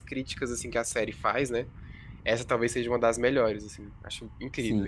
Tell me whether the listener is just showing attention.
No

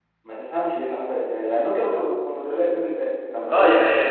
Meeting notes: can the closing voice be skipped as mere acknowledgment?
No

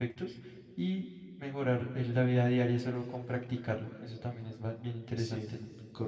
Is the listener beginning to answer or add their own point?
Yes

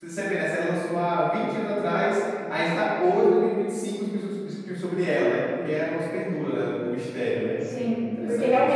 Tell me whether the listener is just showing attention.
No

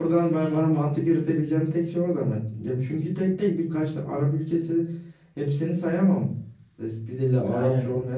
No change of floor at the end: Yes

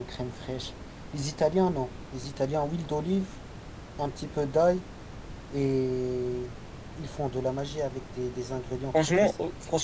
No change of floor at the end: No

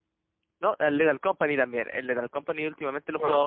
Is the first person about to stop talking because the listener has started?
No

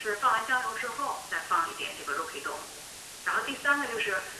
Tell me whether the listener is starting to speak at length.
No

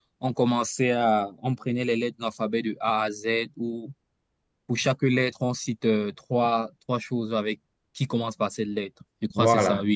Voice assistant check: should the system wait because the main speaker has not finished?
No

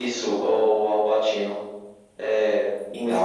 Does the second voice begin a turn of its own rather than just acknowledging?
Yes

